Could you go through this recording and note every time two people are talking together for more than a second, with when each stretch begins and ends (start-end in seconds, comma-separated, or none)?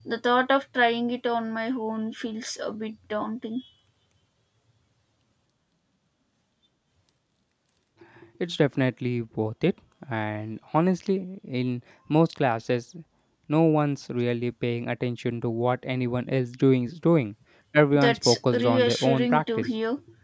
17.9-19.7